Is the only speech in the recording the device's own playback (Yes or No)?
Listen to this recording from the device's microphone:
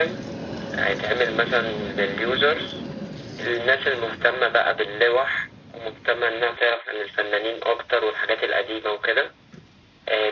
Yes